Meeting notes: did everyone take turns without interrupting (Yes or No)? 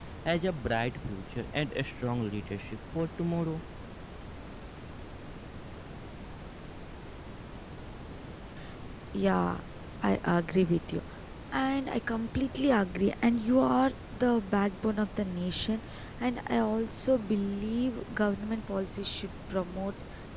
Yes